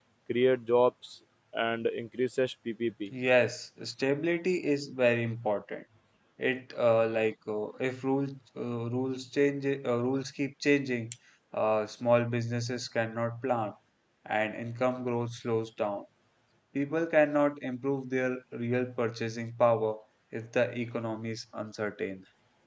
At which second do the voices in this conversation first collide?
none

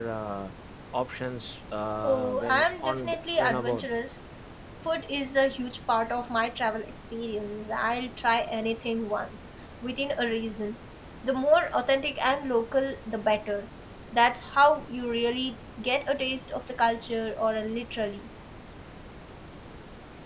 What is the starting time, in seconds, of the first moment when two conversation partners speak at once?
2.0 s

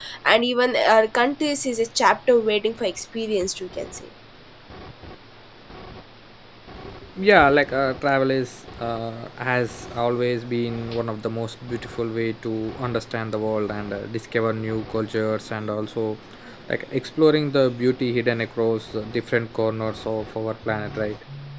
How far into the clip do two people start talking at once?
none

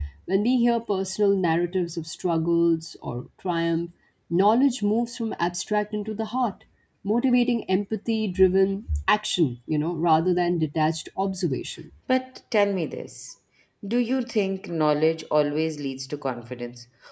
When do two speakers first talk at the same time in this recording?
none

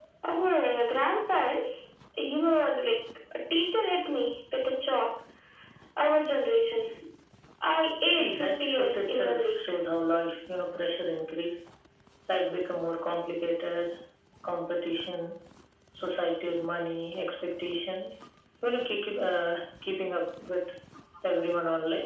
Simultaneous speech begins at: 8.1 s

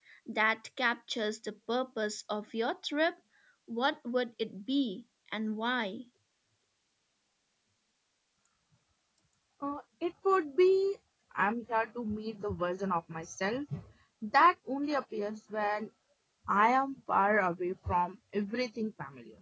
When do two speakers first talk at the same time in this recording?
none

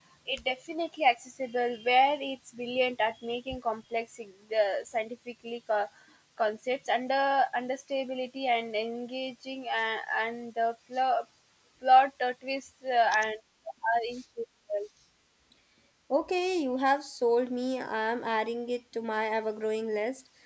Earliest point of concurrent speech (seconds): none

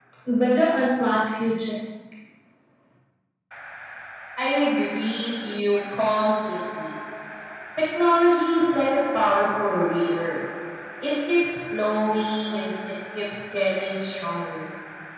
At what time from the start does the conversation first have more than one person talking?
none

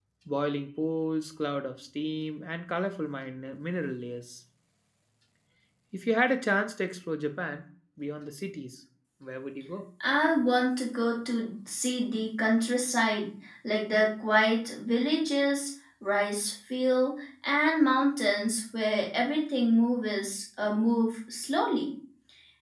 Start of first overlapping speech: none

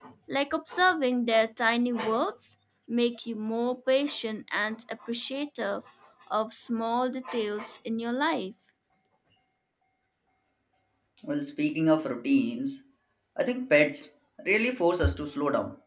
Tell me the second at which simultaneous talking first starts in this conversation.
none

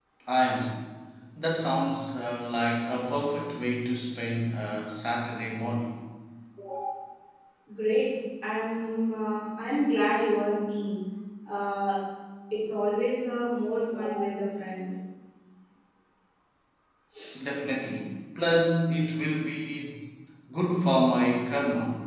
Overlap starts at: none

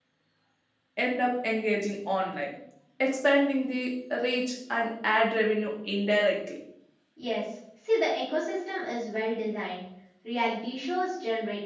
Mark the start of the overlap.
none

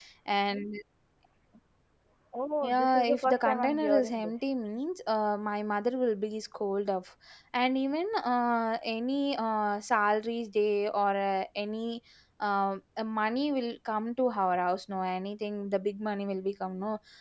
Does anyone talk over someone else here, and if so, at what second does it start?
2.6 s

